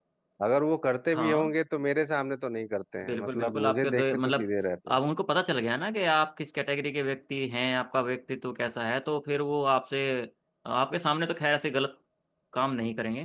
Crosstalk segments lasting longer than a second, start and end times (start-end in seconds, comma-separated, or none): 3.0-4.4